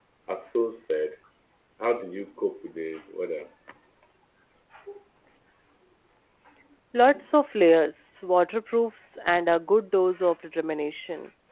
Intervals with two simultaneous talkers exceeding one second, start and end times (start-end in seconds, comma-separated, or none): none